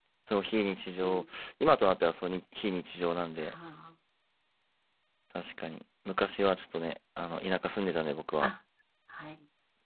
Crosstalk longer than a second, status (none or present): none